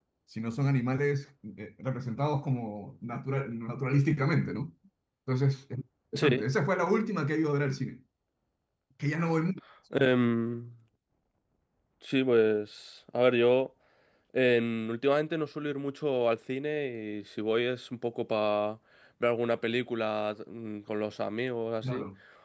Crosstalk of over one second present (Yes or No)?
No